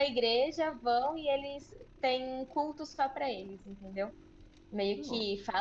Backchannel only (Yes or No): Yes